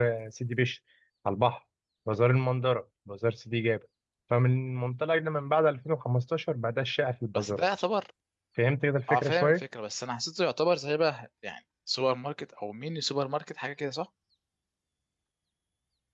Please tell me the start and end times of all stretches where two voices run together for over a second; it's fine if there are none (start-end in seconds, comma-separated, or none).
none